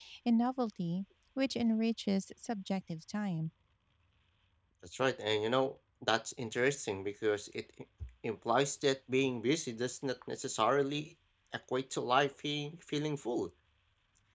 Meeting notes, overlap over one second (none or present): none